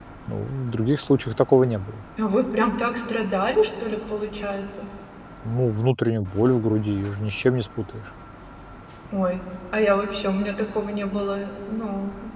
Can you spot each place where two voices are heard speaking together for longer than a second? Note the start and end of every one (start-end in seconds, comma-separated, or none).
none